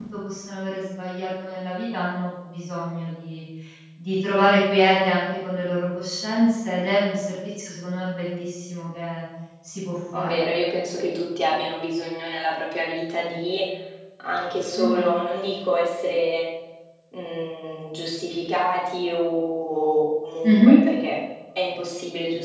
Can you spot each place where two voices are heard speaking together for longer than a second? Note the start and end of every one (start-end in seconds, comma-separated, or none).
none